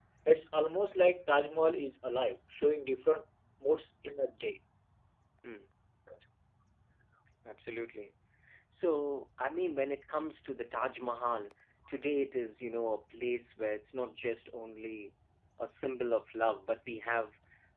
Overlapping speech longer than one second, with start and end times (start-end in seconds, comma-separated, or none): none